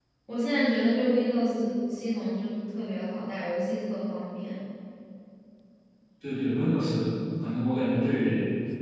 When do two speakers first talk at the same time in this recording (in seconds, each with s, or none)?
none